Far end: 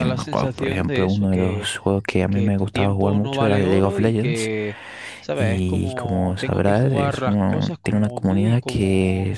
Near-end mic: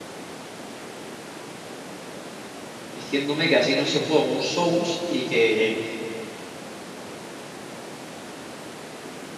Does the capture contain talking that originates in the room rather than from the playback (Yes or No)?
Yes